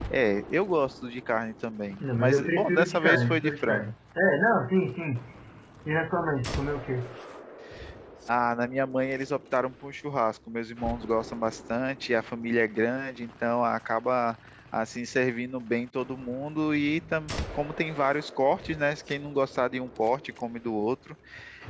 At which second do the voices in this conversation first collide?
2 s

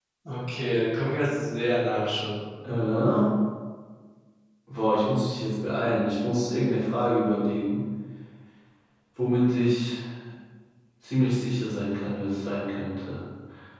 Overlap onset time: none

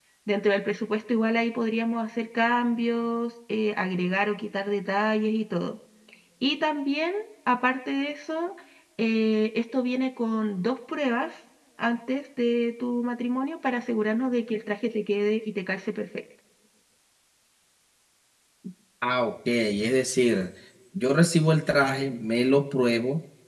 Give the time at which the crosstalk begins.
none

